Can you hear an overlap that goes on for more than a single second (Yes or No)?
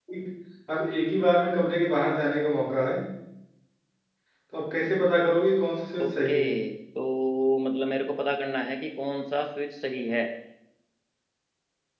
No